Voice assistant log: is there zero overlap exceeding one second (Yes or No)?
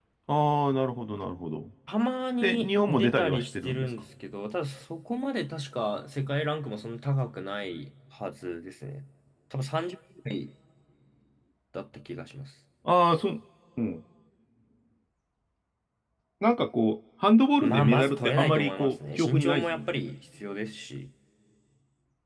No